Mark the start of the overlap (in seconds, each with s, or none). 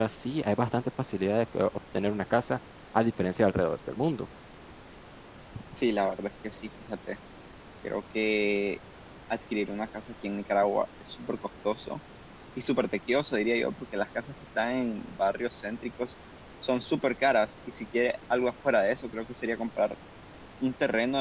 none